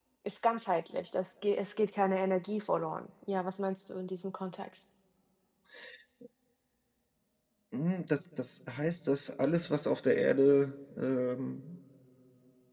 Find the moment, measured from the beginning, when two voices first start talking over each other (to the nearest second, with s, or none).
none